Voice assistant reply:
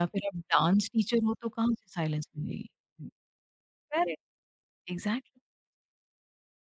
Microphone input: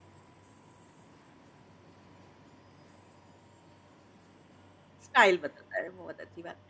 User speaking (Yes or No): Yes